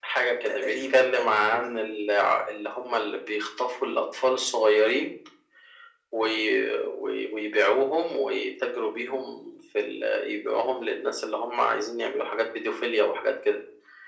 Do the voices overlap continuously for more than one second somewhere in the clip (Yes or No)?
Yes